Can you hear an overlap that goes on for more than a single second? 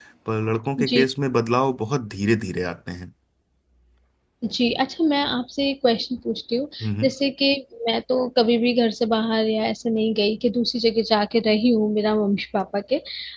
No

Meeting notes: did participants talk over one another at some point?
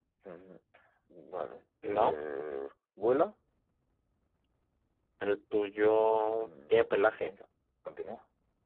Yes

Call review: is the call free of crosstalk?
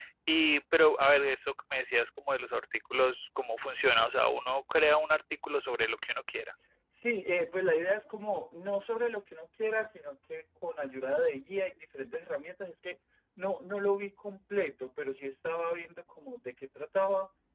Yes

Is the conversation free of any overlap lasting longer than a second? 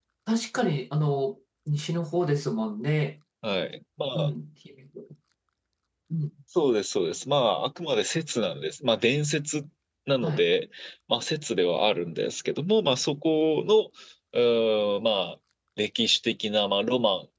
Yes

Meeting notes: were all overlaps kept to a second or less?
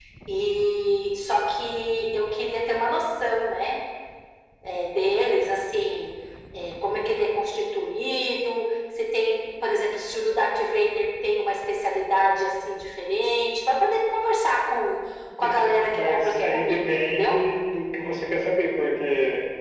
No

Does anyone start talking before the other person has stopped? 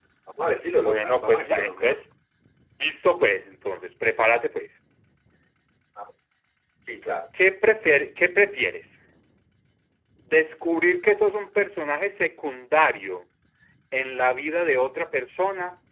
Yes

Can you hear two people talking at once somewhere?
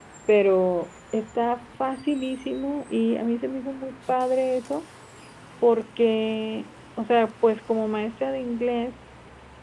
No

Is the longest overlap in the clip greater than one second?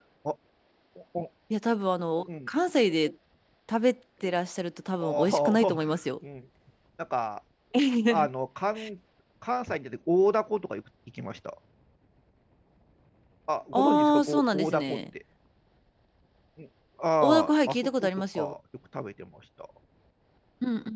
Yes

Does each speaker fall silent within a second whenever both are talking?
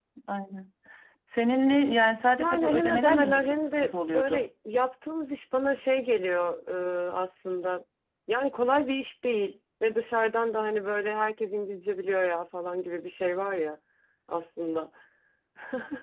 No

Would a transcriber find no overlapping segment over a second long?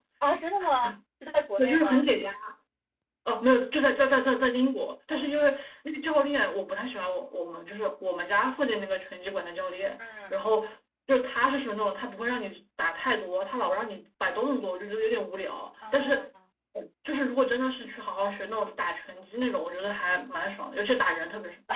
Yes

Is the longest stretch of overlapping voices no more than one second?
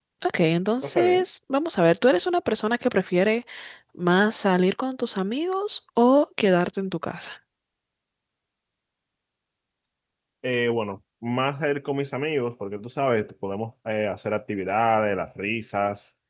Yes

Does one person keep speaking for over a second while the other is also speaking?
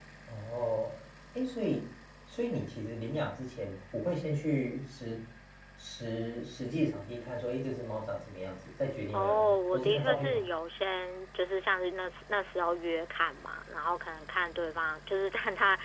Yes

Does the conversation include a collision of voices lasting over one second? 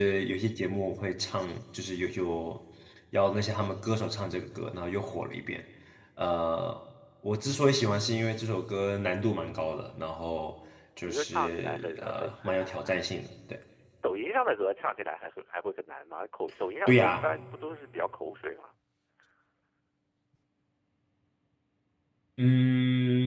Yes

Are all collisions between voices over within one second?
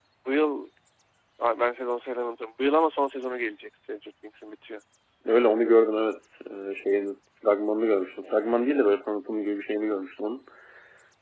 Yes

